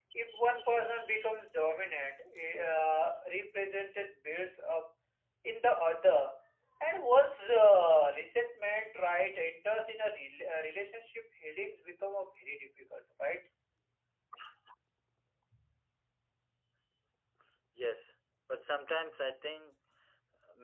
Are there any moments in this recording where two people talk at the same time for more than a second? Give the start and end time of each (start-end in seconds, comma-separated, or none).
none